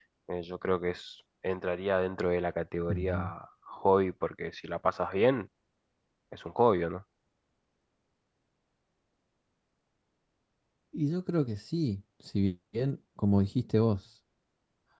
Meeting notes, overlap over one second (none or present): none